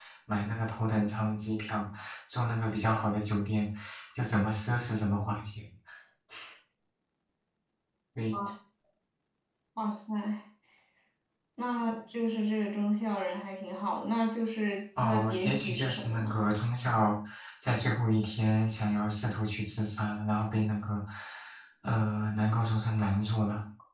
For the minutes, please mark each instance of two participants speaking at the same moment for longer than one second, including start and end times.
15.0-16.4

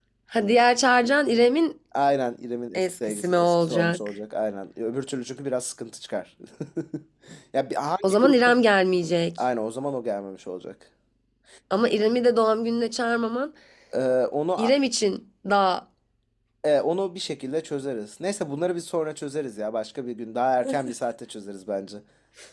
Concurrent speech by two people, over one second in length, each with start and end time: 2.7-4.0

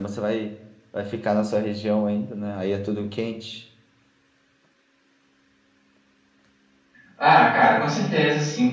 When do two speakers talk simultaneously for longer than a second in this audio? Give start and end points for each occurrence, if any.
none

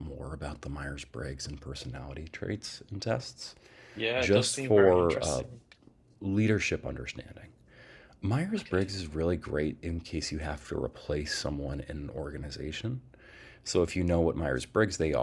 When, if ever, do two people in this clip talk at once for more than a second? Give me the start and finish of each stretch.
4.2-5.4

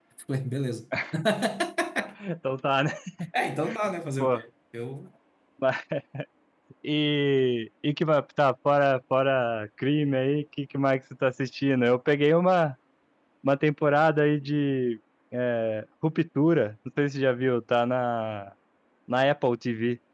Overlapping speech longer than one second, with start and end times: none

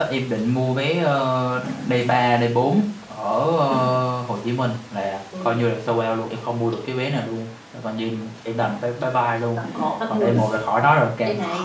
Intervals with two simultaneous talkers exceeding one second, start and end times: none

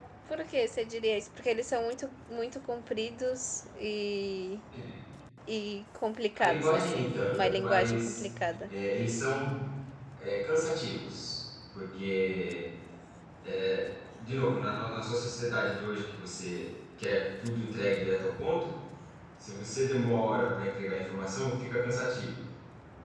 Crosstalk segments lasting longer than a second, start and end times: 6.4-8.2

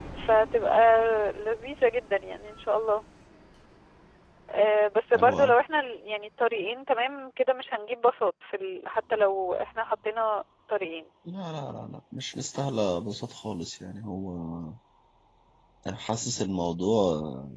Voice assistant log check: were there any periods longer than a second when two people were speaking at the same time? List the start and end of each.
none

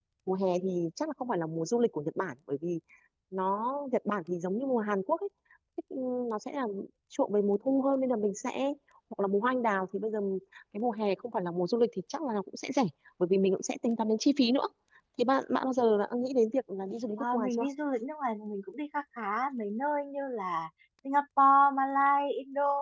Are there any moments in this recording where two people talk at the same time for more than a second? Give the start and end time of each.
none

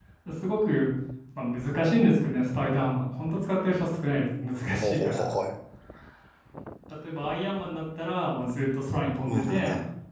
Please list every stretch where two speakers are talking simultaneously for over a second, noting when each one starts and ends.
none

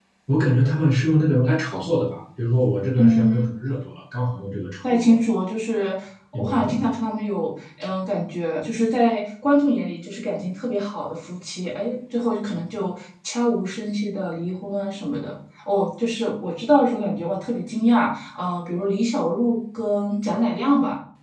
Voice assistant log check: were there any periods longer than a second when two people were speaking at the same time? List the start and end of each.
none

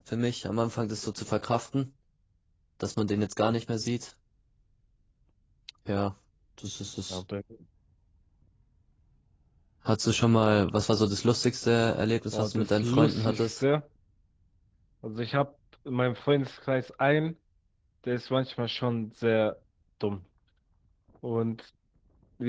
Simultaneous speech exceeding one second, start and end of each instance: 12.3-13.5

